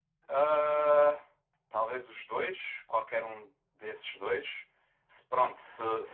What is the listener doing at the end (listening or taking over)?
listening